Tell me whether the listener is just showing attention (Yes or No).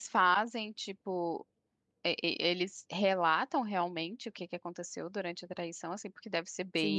No